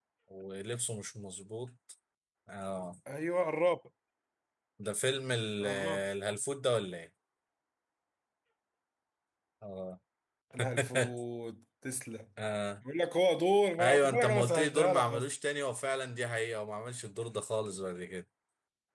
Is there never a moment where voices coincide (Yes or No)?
No